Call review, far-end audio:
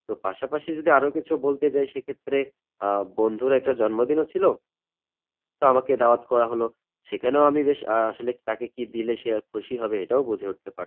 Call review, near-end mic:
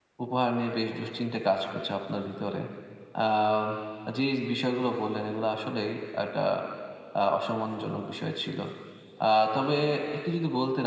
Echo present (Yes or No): No